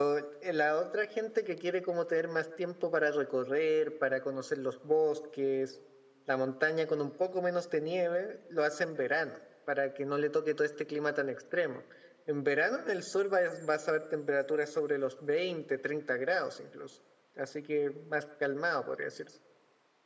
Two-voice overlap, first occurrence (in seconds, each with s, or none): none